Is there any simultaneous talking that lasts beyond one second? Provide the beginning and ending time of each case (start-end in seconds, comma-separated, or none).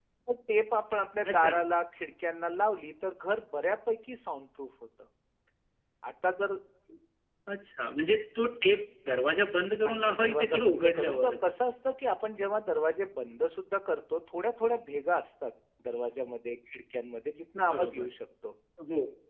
9.8-11.3